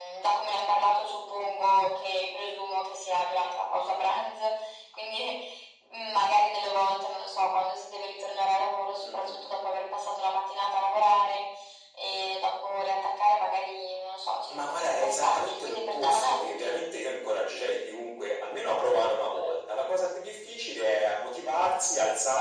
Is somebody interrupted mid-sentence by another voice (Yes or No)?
Yes